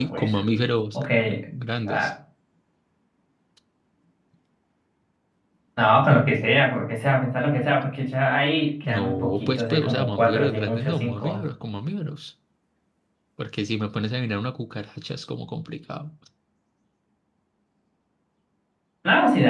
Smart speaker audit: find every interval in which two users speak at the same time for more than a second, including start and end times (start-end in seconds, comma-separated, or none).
8.8-11.4